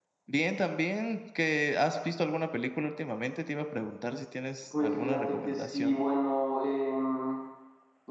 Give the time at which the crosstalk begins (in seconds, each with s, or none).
4.7 s